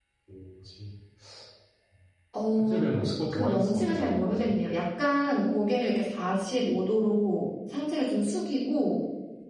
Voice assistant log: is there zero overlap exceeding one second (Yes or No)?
No